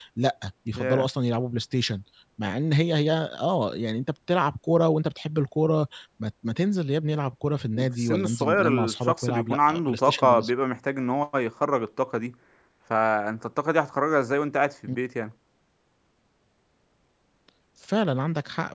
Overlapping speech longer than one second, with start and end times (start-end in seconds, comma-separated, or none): 7.8-10.5